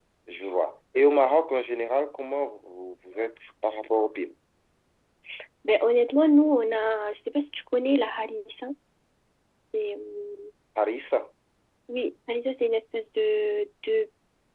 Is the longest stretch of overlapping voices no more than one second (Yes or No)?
Yes